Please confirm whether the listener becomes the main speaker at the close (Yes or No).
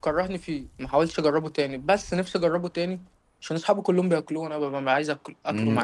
Yes